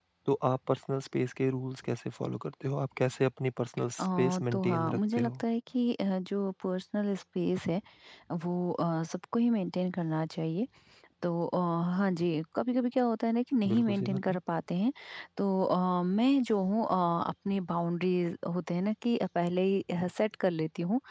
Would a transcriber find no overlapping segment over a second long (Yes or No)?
No